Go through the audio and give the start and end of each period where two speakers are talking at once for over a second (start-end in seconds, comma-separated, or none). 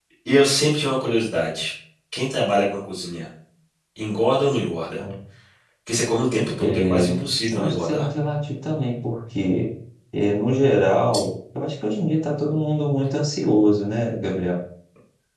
6.6-8.1